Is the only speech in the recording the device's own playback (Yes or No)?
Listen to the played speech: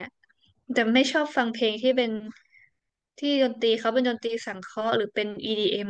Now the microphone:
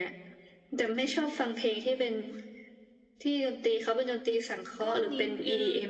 No